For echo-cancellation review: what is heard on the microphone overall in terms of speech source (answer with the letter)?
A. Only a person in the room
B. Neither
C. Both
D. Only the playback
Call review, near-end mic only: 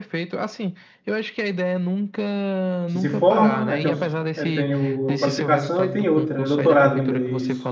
C